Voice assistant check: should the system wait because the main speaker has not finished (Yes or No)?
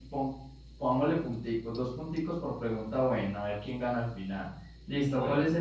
Yes